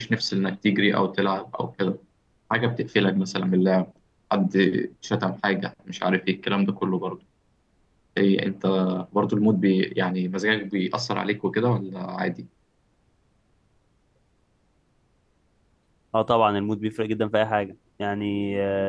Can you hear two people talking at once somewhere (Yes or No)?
No